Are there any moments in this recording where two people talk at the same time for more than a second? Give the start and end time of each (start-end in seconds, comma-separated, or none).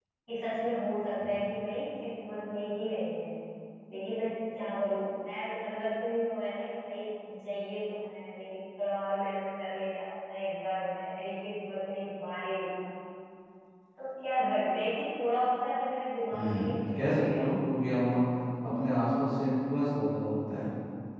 16.3-17.6